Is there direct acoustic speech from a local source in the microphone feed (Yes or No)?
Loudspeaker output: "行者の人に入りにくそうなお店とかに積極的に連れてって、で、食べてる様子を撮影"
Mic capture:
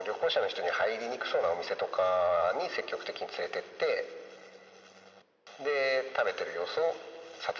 No